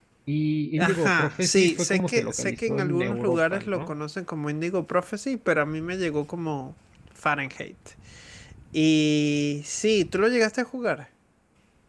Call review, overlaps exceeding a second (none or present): present